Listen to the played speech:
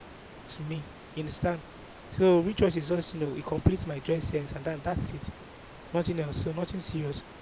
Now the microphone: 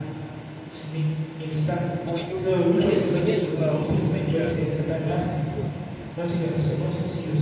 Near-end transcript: But you, but here, but here you are also saying that it's just what it is.

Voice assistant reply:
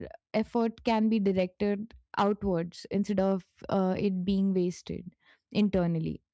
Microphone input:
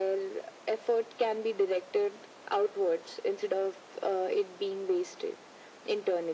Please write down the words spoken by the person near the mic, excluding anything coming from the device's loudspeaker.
none

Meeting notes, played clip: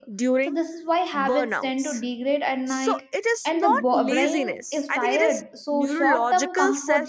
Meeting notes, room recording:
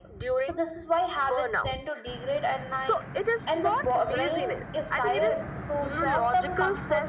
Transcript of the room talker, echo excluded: none

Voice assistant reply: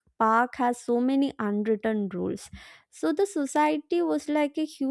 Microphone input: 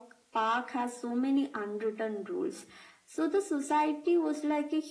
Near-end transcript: none

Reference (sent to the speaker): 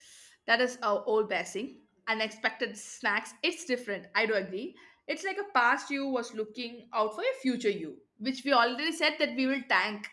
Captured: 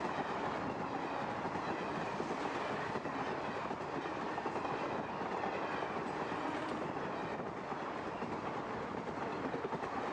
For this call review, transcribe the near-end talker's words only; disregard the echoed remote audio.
none

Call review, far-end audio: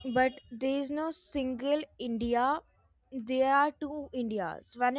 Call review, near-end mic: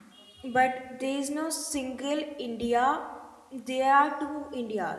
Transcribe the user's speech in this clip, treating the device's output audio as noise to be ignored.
none

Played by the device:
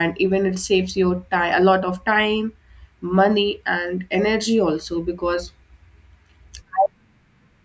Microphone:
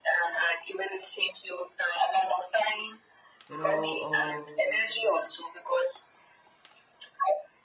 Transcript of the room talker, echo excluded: you know uh,

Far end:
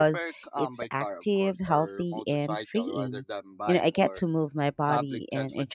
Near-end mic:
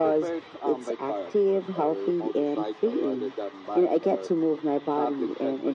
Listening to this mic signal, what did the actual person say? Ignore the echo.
none

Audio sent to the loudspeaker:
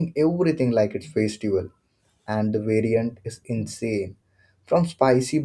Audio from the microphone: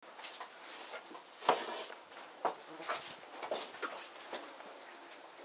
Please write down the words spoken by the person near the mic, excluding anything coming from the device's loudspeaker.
none

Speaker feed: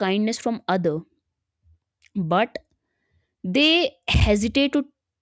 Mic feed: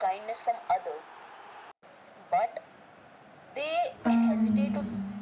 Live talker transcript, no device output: um

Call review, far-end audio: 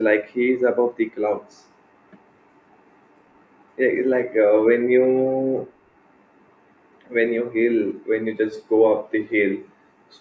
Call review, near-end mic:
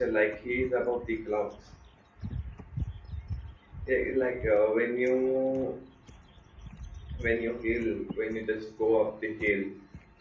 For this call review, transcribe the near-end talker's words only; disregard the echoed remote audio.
none

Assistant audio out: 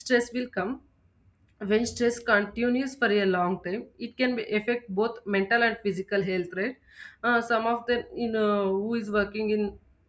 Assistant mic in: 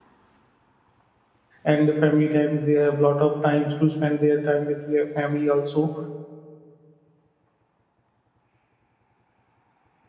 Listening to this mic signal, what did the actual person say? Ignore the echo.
and the family time they have lot of times to spend their time with their family also

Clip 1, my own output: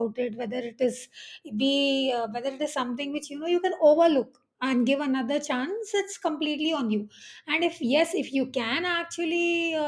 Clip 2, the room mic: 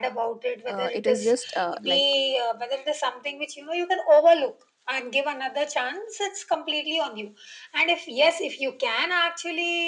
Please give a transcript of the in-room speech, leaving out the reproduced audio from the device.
uh, it is just uh, like

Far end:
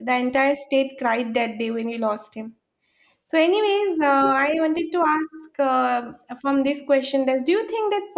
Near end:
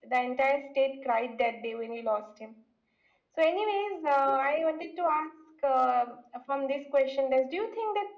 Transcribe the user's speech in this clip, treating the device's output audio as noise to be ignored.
none

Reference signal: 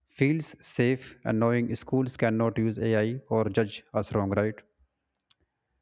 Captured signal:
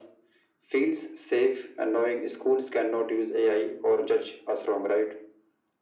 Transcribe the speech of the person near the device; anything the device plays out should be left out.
none

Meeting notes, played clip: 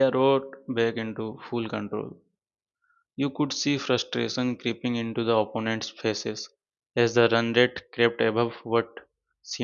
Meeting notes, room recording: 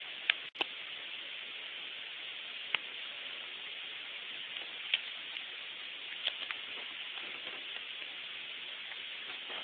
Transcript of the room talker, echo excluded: none

